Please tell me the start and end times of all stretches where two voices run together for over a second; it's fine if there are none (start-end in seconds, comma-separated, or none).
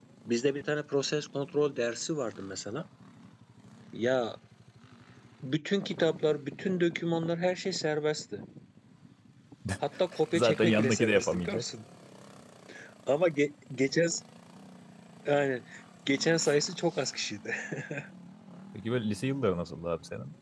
10.3-11.6